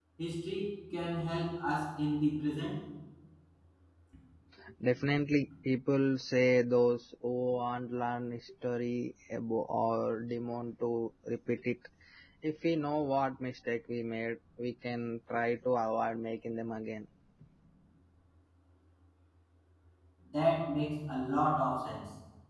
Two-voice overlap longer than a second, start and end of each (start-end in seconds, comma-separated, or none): none